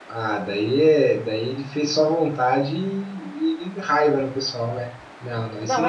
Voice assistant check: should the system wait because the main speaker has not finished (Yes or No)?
No